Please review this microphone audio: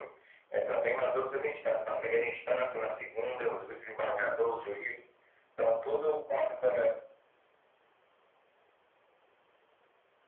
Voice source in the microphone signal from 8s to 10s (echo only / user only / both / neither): neither